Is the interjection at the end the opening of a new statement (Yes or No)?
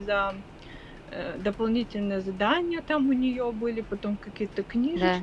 No